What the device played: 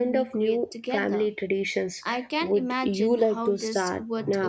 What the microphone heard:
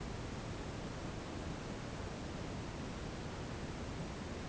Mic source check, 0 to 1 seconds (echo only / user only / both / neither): neither